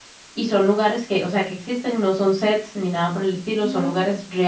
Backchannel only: Yes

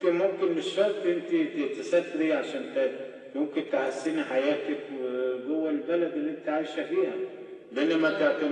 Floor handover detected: No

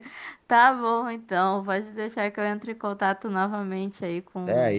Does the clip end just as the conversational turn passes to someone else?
Yes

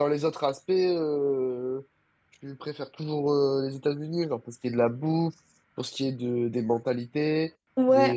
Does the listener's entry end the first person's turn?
Yes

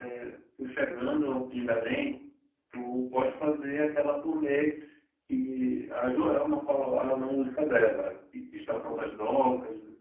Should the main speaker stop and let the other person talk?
No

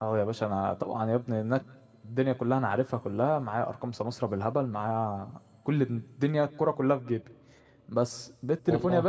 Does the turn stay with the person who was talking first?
Yes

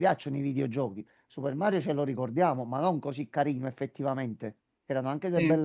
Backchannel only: Yes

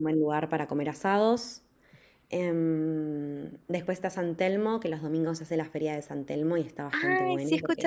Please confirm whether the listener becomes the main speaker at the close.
Yes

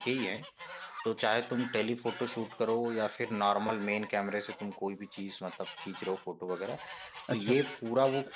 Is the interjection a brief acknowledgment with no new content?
Yes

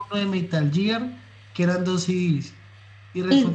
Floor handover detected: No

